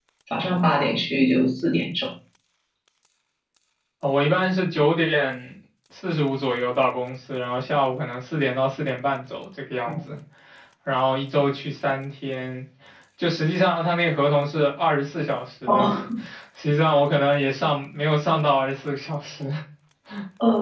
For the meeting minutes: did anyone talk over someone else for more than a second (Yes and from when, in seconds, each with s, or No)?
No